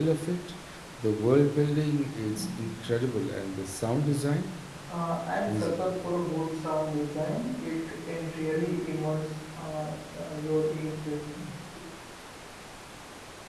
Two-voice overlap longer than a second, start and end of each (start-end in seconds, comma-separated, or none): none